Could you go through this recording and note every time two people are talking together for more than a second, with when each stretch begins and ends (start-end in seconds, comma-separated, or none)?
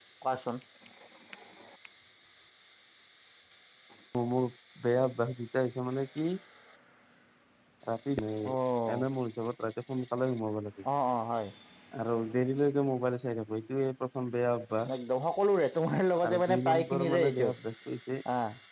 16.2-17.5